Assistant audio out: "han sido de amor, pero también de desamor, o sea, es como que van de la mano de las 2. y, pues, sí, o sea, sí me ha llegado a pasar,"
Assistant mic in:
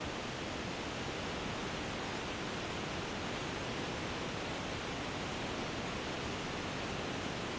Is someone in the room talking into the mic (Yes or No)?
No